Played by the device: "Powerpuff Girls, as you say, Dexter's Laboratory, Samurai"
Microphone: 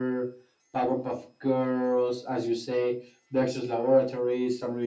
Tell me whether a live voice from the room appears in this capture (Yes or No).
No